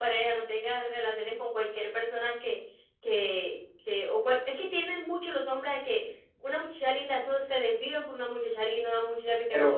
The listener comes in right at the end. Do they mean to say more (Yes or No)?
Yes